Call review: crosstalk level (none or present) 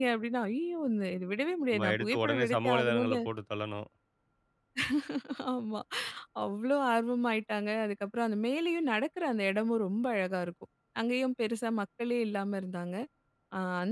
present